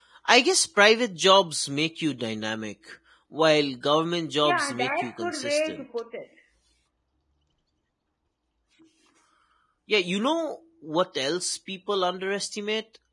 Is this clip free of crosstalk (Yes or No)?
No